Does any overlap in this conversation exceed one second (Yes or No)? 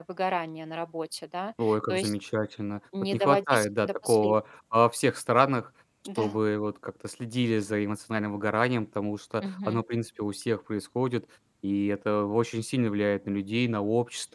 Yes